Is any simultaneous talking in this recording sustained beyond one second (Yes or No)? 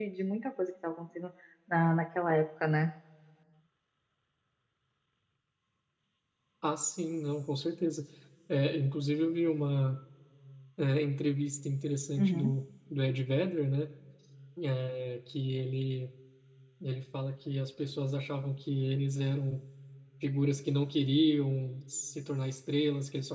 No